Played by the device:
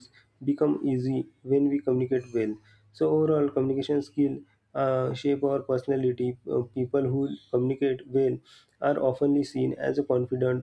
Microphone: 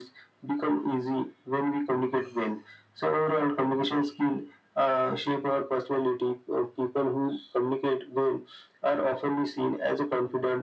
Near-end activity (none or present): none